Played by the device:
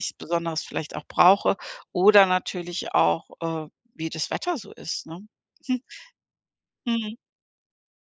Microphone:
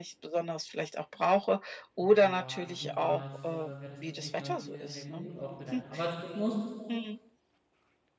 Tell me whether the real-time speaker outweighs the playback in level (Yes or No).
No